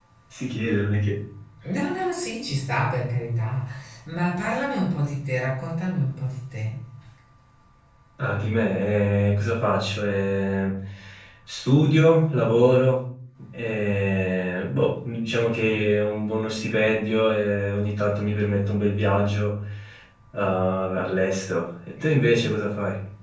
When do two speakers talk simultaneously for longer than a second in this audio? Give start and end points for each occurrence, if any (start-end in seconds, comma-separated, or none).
none